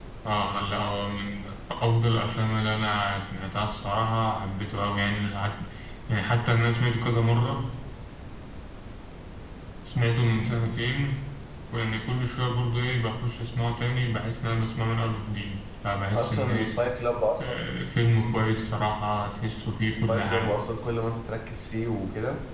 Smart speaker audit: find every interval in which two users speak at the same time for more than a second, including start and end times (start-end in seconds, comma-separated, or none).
none